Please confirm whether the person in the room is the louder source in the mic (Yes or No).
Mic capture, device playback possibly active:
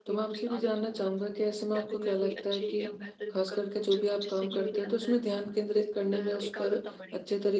Yes